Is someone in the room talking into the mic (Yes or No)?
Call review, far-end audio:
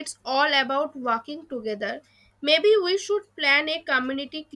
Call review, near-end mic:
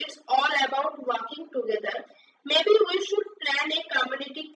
No